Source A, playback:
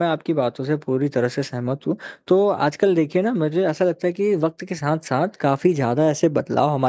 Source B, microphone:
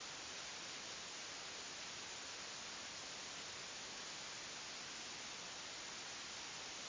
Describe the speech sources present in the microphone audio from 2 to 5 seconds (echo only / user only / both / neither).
neither